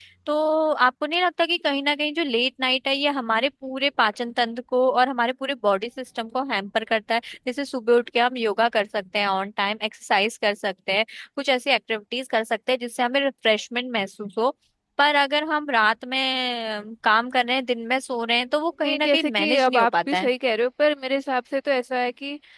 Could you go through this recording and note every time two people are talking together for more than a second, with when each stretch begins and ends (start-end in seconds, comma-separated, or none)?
18.9-20.3